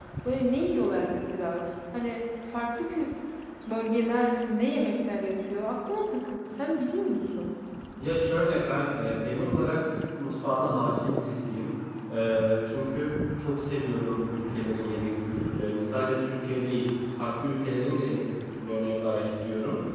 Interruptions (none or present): none